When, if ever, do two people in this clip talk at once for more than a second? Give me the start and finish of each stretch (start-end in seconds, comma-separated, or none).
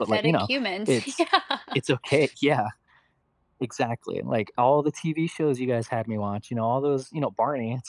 none